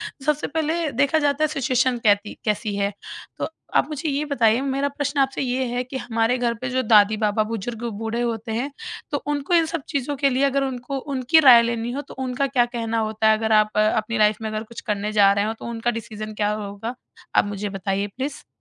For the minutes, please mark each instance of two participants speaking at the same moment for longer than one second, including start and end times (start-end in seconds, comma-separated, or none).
none